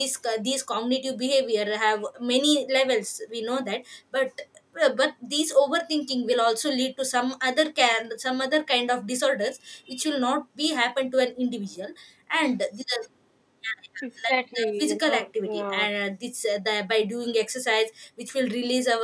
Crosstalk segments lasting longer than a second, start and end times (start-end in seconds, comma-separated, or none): 14.3-15.9